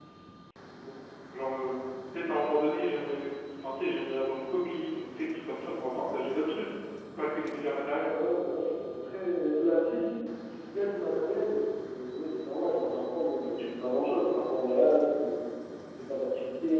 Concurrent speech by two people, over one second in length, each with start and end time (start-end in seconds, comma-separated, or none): none